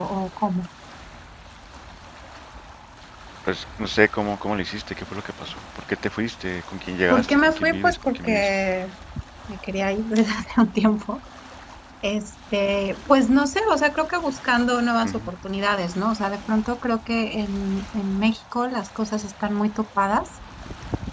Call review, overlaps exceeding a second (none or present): present